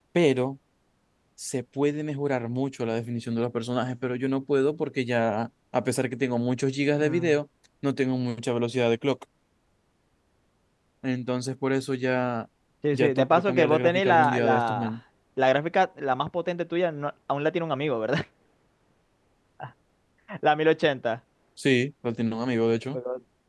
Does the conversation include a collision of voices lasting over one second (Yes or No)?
Yes